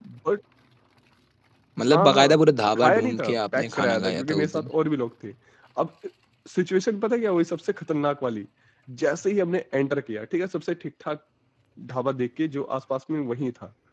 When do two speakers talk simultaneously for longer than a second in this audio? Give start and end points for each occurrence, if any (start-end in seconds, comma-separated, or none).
2.8-4.7